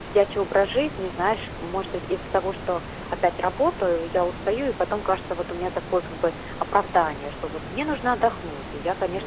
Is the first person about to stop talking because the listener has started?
No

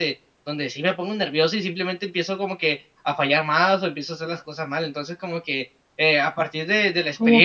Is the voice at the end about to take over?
Yes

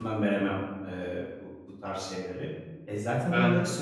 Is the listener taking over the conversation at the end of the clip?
No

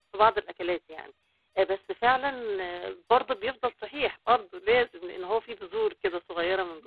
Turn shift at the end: Yes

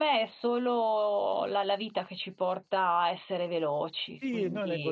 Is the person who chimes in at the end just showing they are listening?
No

